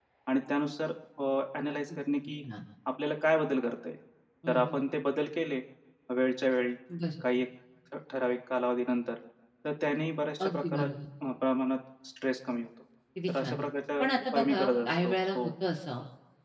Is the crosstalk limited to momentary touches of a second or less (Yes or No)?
No